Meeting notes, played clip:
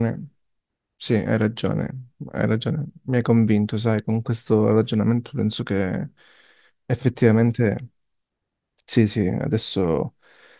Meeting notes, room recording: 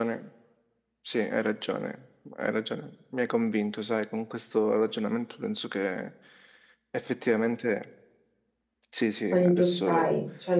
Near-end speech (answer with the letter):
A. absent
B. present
B